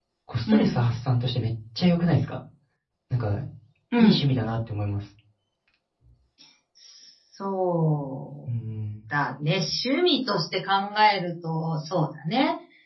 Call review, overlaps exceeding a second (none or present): none